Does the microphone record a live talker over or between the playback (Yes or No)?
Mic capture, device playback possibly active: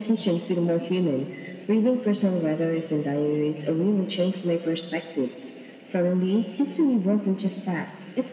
No